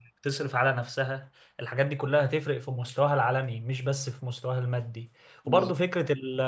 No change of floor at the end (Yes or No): Yes